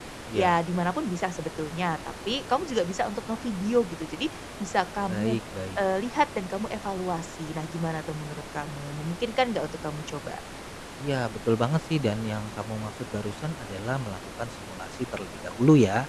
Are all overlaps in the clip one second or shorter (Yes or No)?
Yes